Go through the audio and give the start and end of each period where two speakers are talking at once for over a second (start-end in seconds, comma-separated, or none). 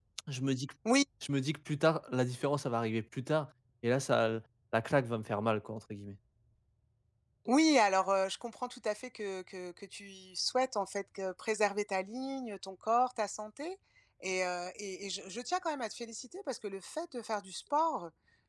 none